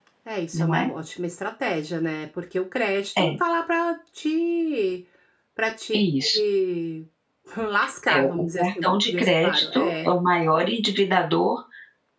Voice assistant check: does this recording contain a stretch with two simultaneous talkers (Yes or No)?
Yes